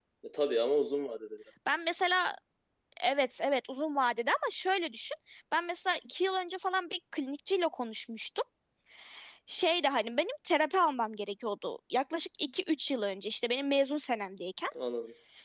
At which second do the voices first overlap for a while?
none

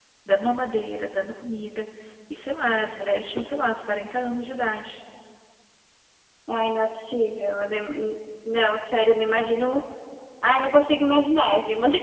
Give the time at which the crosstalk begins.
none

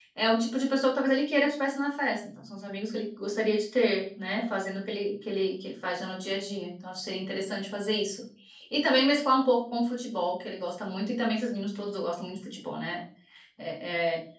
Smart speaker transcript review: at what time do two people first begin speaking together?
none

